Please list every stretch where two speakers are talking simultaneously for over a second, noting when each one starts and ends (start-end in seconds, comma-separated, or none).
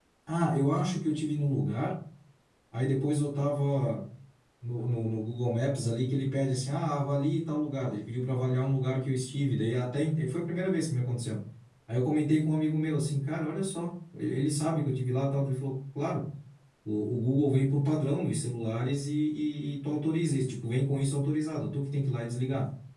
none